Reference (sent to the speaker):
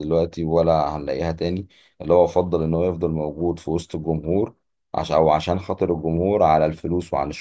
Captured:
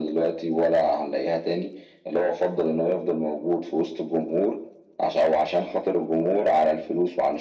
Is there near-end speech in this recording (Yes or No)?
No